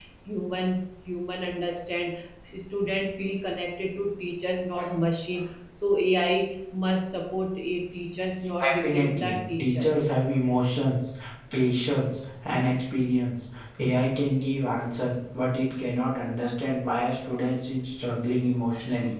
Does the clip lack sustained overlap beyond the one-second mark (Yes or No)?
No